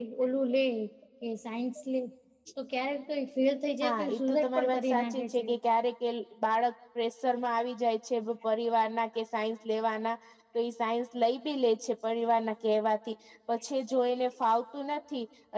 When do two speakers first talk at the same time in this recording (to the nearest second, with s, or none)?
4 s